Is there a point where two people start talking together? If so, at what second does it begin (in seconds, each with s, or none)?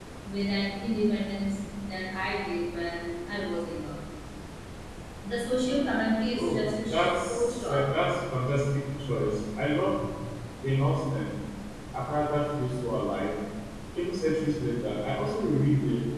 6.4 s